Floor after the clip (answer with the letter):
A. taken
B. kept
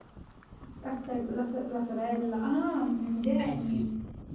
A